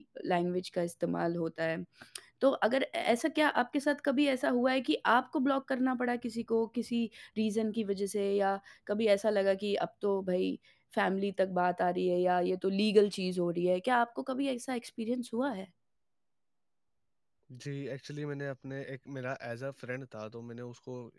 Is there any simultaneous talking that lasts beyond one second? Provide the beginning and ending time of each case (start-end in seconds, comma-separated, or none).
none